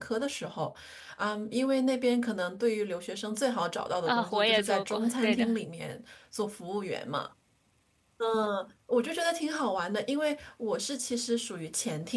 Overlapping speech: Yes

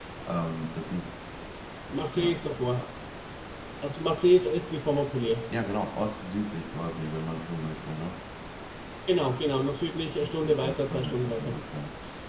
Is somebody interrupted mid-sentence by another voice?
Yes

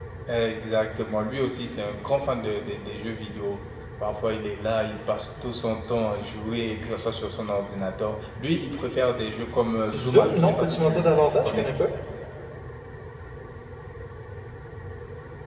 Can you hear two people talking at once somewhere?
Yes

